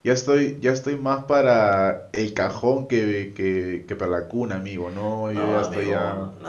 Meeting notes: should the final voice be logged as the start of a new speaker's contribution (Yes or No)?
Yes